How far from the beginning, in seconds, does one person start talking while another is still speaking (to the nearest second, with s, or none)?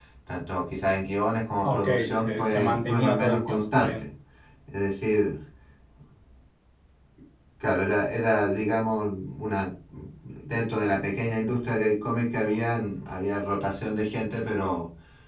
2 s